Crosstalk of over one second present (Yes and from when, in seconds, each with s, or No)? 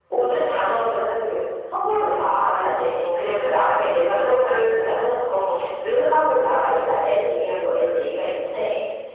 Yes, from 2.5 s